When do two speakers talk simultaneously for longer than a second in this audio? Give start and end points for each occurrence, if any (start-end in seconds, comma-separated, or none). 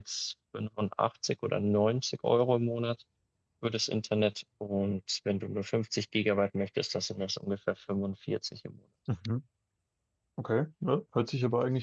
none